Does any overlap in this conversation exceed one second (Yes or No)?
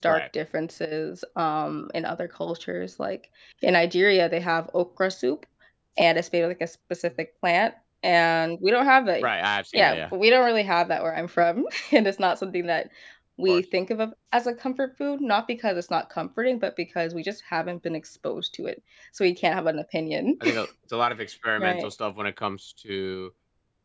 No